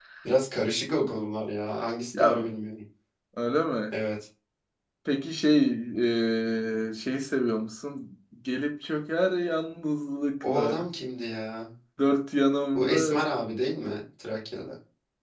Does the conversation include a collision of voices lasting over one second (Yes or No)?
No